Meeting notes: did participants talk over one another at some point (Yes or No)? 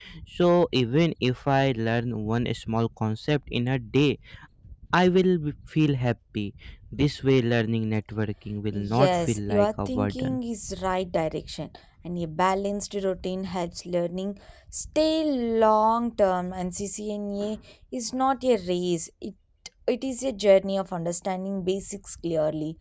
Yes